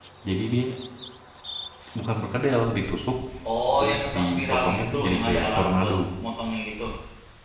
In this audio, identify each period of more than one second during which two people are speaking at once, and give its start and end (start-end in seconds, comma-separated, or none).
3.8-5.9